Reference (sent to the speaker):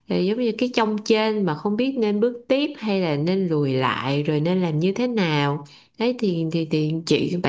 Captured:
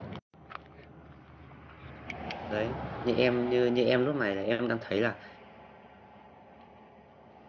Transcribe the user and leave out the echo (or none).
đấy. Như em như như em lúc này là em đang thấy là